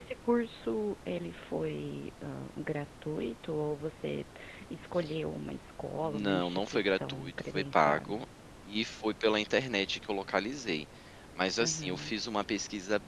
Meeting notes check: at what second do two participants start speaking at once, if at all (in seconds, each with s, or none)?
6.0 s